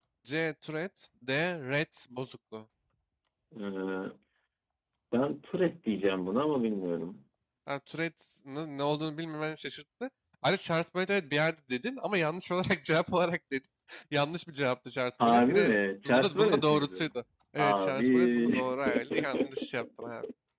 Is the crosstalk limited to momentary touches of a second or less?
No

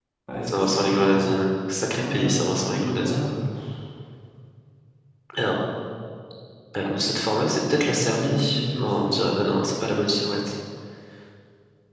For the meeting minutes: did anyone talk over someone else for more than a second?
Yes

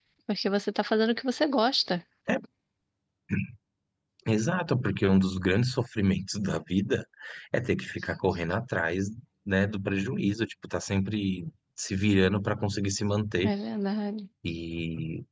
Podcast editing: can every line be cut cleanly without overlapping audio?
Yes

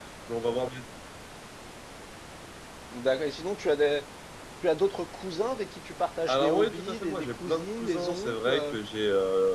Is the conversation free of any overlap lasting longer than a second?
No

